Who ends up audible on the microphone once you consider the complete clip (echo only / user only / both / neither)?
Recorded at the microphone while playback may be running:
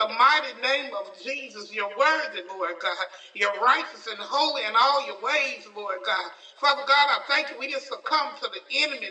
echo only